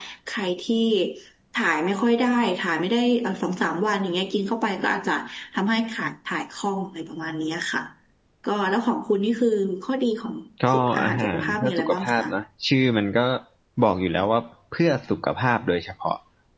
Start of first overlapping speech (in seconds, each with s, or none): 10.7 s